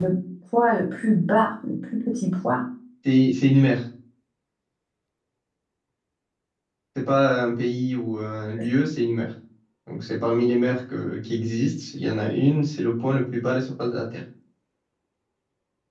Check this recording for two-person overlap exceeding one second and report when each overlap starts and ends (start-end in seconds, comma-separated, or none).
none